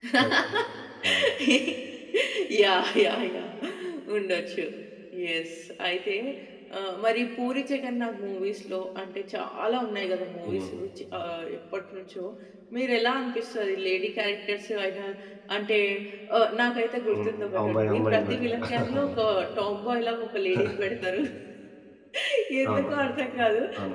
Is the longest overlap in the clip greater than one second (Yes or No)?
Yes